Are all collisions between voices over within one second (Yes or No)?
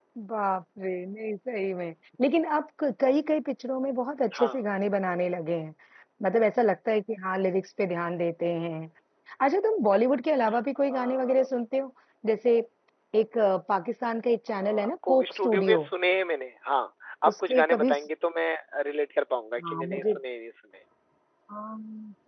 No